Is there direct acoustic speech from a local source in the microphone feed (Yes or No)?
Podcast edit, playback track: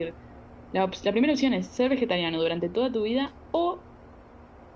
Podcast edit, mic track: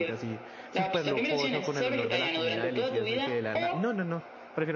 Yes